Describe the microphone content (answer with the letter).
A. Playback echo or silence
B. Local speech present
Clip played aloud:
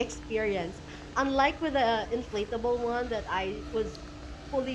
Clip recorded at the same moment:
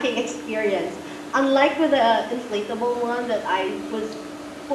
A